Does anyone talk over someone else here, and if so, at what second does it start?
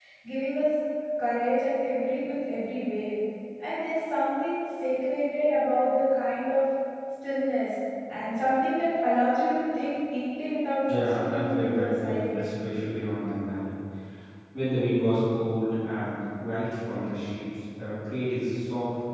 10.9 s

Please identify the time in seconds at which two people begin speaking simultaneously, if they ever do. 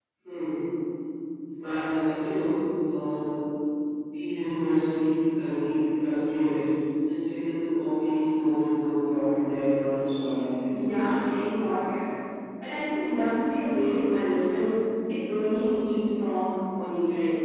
10.6 s

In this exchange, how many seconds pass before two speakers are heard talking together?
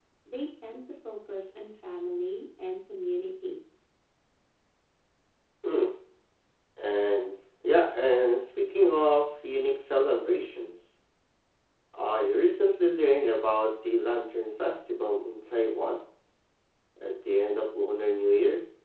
none

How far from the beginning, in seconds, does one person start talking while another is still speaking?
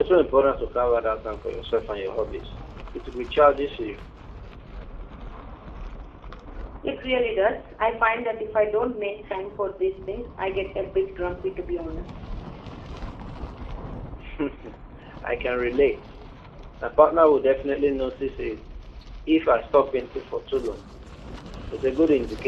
none

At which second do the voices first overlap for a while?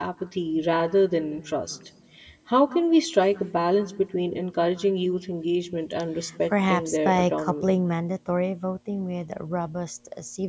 6.5 s

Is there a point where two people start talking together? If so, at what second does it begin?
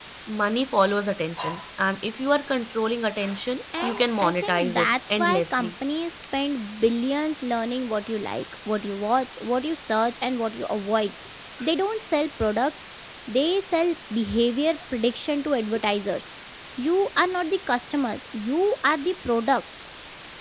3.7 s

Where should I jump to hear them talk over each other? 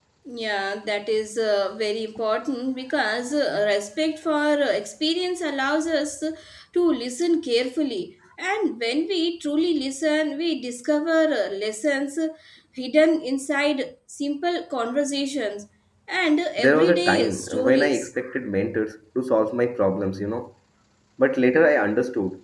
16.6 s

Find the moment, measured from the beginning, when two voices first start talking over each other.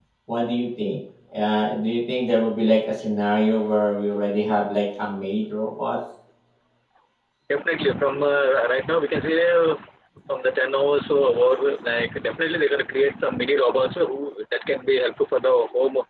none

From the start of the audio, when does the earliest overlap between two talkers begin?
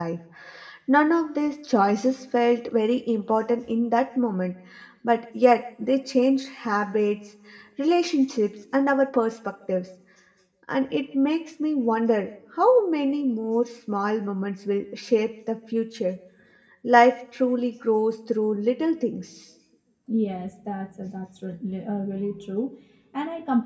none

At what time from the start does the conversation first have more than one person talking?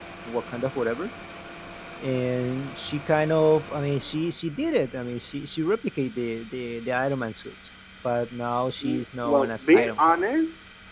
8.8 s

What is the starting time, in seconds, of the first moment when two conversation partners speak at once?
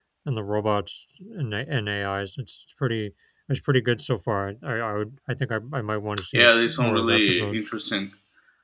6.3 s

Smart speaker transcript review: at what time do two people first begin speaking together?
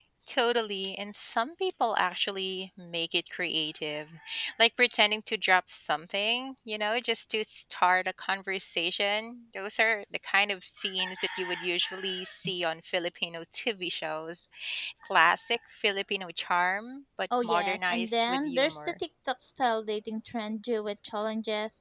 17.3 s

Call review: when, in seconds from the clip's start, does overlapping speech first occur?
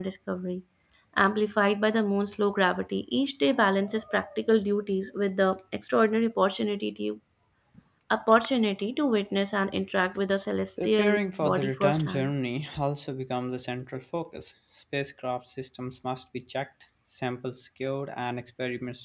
10.8 s

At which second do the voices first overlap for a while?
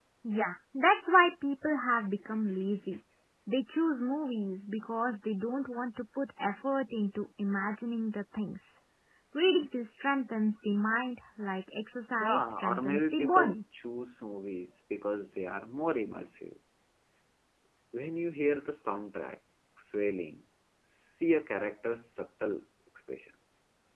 12.2 s

